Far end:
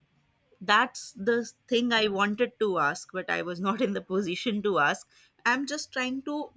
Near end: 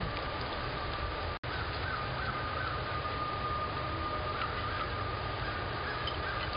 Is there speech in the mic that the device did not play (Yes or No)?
No